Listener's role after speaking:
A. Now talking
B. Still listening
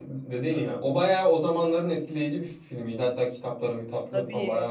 B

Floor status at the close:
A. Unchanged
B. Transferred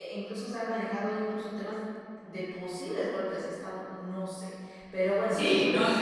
B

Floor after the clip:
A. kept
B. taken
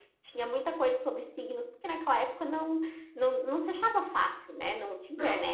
B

